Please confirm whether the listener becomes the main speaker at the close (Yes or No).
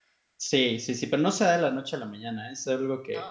No